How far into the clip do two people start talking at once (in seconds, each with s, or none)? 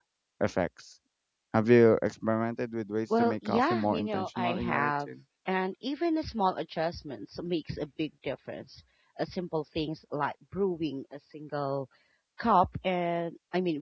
3.1 s